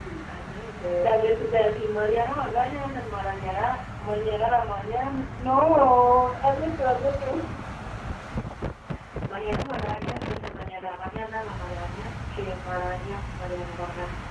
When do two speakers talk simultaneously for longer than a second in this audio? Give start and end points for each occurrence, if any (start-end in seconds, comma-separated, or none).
none